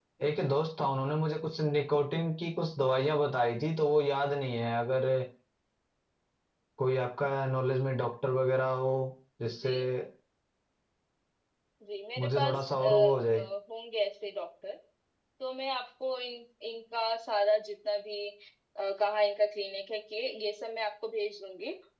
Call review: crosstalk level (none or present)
present